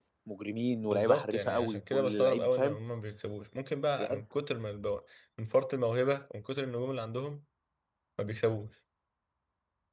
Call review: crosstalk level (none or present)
present